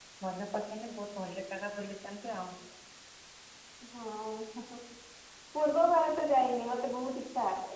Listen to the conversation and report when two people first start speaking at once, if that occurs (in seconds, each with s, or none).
none